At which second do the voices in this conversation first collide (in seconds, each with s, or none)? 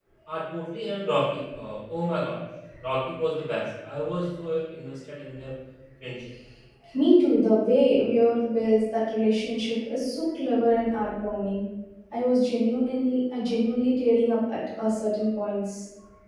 none